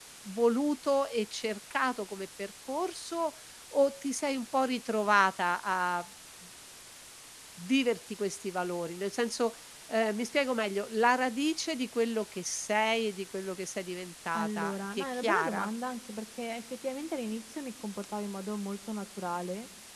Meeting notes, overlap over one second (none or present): present